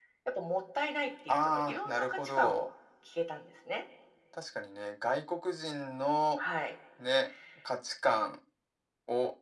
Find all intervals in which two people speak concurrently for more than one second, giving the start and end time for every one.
1.3-2.7

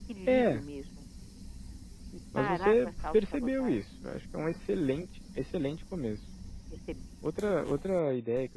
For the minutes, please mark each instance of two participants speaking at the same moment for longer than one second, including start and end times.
2.4-3.9

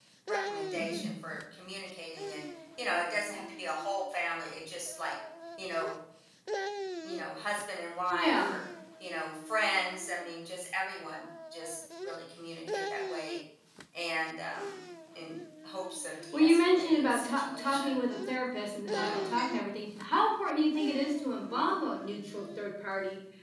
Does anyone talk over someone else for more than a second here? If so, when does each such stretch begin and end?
16.3-18.0

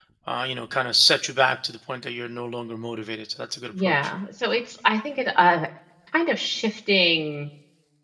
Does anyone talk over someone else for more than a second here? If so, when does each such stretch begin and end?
none

